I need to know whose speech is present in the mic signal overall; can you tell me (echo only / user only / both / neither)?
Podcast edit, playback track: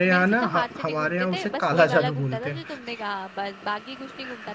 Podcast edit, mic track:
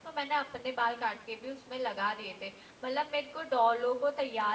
user only